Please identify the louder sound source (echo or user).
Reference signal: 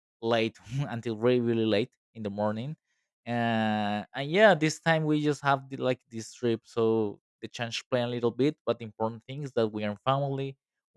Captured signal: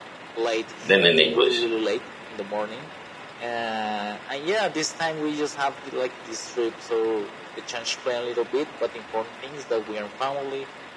user